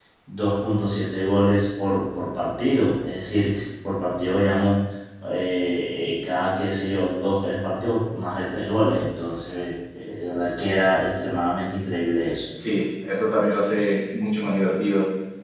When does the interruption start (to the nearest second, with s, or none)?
none